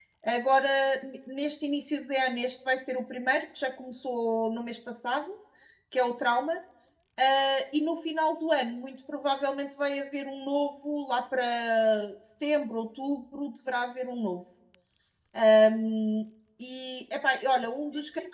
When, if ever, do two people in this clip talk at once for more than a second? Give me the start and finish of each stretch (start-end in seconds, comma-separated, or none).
none